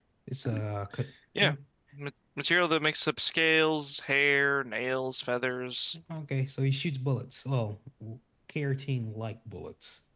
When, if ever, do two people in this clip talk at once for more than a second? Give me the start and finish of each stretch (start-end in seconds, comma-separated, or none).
none